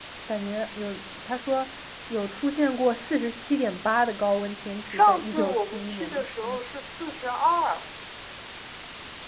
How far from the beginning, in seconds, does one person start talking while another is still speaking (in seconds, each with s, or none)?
4.8 s